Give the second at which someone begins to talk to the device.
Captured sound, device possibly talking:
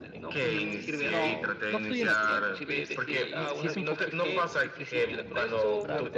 0.4 s

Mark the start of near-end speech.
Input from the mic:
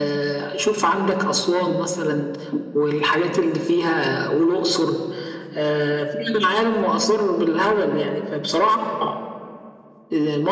none

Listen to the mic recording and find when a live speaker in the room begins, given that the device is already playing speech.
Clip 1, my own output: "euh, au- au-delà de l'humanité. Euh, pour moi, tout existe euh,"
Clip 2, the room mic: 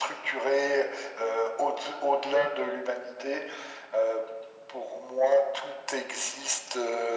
none

